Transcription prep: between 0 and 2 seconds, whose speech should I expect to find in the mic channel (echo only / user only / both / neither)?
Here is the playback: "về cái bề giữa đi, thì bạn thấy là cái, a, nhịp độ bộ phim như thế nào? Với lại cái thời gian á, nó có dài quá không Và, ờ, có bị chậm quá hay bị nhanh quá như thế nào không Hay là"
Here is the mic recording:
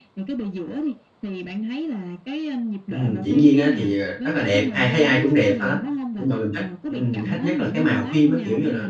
echo only